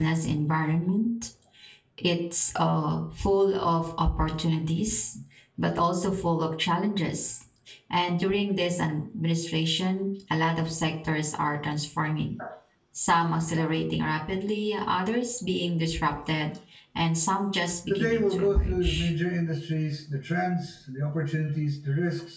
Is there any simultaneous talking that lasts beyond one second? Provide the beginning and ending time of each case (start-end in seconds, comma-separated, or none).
17.9-19.1